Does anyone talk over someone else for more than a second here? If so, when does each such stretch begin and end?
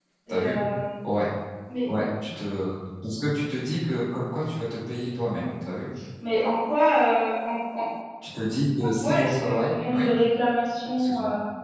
8.8-10.1

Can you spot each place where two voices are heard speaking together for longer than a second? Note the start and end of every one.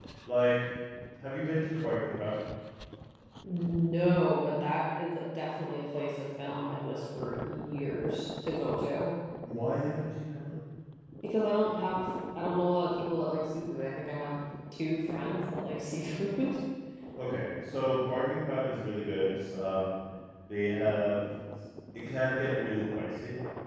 none

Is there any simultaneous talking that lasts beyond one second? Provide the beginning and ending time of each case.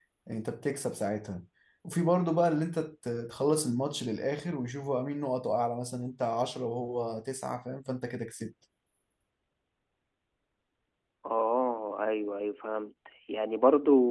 none

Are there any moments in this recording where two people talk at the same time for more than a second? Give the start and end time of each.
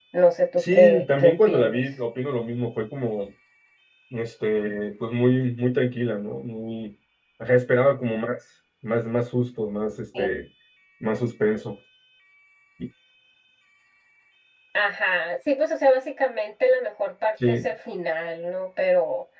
0.6-1.8

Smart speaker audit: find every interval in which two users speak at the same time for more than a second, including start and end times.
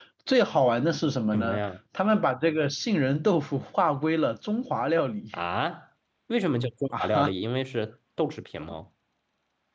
none

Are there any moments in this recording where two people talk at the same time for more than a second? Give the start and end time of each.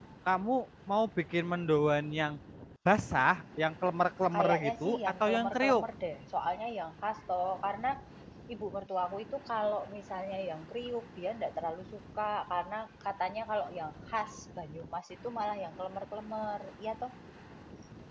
4.3-5.8

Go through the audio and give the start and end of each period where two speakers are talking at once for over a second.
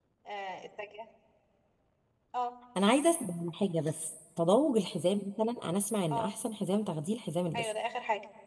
none

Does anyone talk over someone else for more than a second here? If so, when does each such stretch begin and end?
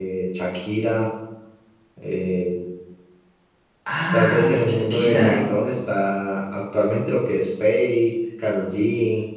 4.1-5.4

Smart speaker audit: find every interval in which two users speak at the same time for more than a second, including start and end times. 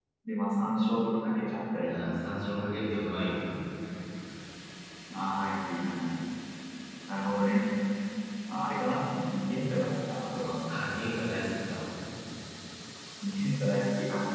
none

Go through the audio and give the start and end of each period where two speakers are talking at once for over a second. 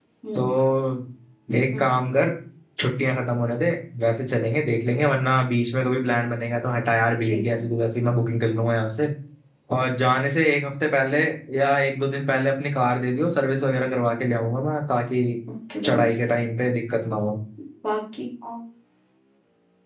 none

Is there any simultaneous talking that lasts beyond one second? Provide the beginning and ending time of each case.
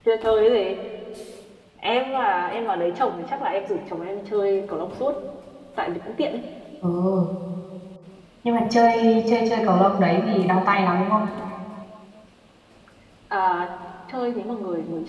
none

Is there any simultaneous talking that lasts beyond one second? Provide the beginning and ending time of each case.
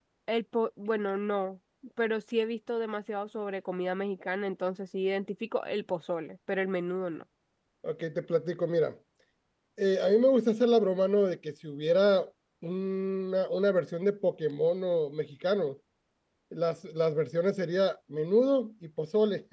none

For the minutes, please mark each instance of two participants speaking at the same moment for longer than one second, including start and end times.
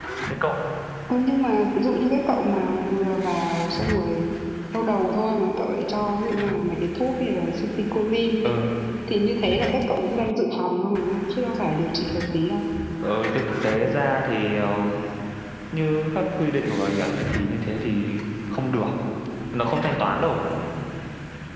none

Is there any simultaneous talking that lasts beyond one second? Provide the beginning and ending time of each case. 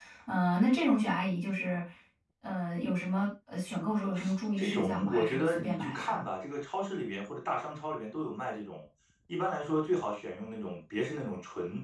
4.6-6.2

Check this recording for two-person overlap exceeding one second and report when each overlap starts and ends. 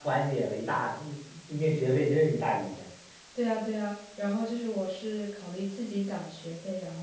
none

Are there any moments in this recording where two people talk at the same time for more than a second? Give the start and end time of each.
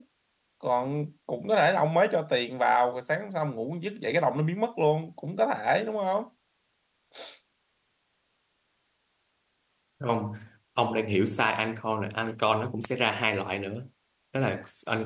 none

